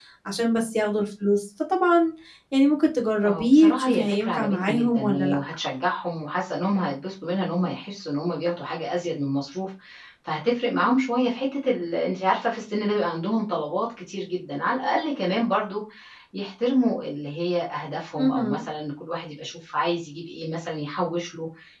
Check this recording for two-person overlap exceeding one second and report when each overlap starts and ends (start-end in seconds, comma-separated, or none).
3.2-5.4